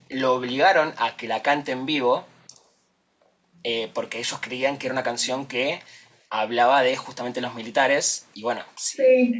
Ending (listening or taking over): listening